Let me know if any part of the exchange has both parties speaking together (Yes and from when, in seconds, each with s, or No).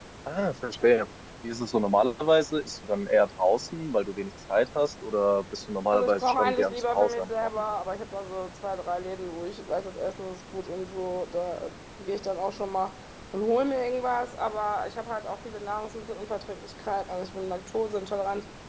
Yes, from 5.9 s